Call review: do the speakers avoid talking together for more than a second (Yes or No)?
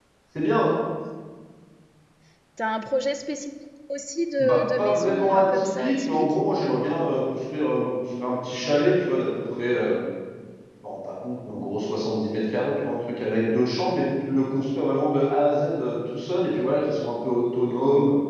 No